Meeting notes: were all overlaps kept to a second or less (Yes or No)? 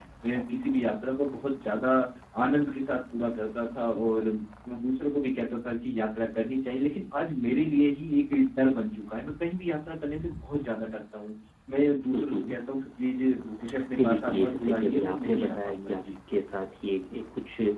No